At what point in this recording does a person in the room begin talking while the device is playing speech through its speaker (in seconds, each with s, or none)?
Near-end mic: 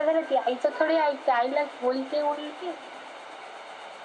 none